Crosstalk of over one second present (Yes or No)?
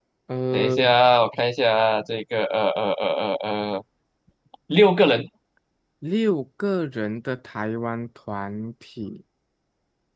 No